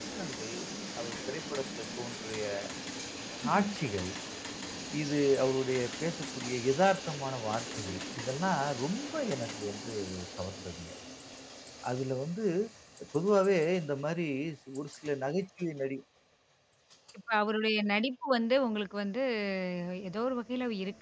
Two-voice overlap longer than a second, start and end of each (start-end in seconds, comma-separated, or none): none